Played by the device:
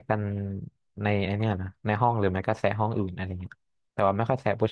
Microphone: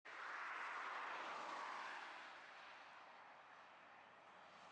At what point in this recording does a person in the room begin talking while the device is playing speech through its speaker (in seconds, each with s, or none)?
none